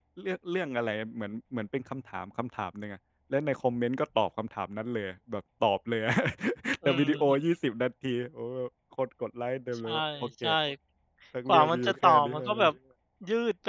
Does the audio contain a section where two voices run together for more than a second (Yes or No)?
Yes